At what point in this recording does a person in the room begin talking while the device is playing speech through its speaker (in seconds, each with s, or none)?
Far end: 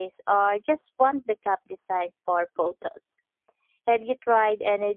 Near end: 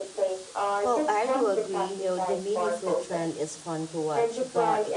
0.8 s